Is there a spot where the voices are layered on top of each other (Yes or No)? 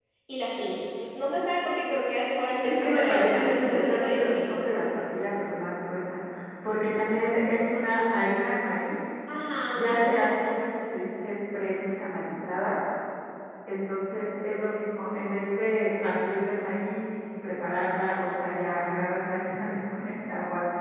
Yes